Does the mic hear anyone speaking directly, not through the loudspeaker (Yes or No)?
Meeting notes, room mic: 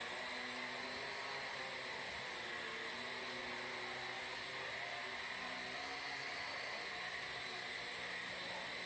No